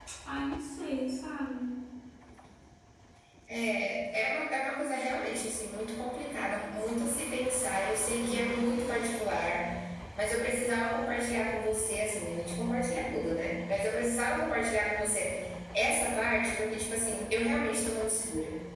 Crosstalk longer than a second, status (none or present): none